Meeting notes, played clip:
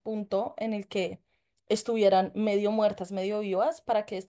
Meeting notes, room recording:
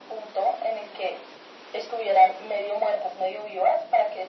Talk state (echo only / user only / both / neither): echo only